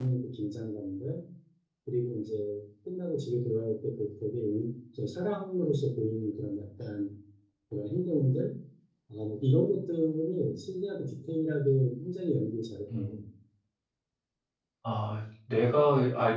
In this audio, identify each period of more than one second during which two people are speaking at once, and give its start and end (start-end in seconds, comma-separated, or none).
none